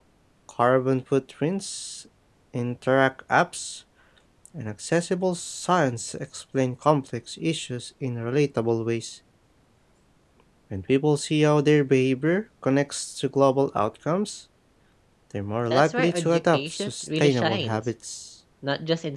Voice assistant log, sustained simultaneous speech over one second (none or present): present